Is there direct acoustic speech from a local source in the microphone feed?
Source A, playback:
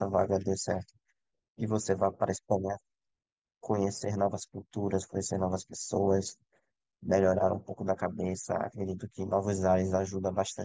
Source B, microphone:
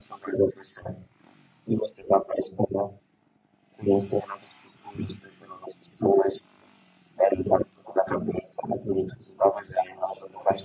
No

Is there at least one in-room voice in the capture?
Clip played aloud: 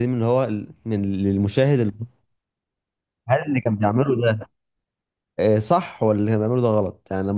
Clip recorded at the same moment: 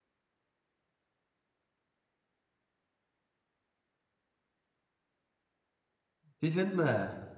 Yes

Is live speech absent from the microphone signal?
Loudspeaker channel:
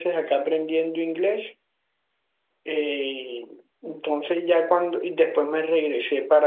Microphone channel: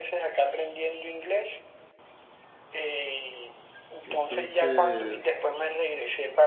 No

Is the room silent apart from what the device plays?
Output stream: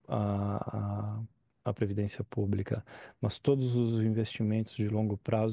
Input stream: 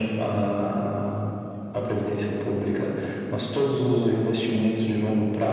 Yes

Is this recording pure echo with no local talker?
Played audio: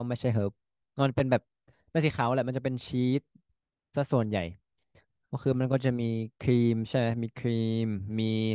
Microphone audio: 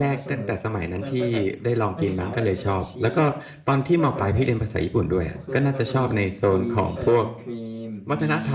No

